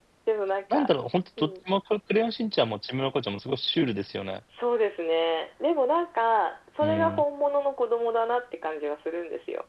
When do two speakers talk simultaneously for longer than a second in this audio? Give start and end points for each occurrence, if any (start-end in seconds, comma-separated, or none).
none